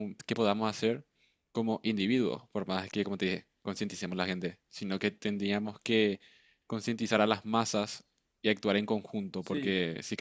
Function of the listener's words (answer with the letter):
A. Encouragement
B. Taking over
A